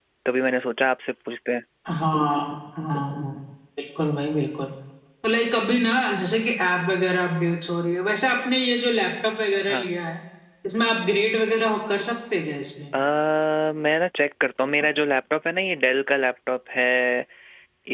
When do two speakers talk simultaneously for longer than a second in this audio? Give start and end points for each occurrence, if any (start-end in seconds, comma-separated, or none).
none